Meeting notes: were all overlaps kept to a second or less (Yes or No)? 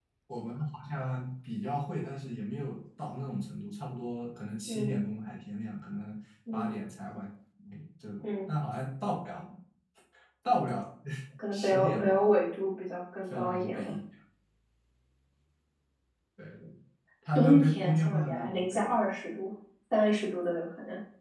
No